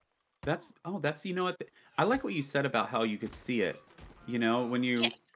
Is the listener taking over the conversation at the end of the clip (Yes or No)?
No